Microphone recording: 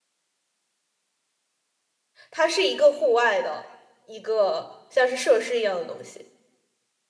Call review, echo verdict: none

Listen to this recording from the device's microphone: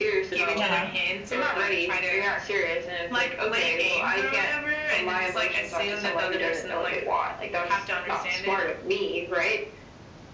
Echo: present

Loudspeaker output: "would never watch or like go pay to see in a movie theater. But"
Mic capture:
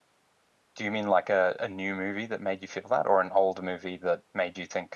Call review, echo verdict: none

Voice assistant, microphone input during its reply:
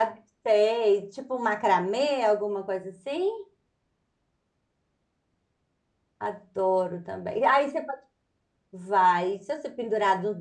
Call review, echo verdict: none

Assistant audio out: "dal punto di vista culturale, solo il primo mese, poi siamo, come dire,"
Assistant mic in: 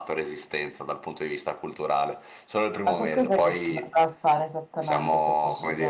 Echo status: present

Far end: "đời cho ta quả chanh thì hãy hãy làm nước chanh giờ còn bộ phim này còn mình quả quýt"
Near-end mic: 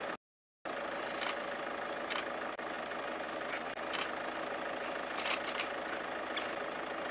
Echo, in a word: none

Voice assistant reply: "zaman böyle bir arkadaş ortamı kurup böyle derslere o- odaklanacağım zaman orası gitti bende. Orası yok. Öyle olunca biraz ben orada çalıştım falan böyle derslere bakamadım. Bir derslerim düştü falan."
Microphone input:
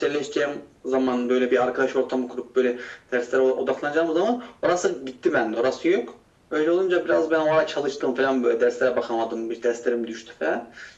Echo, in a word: present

